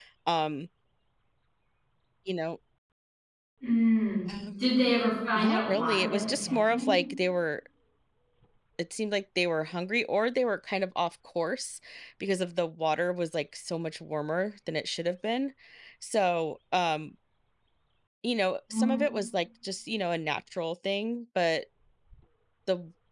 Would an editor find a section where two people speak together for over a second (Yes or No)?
Yes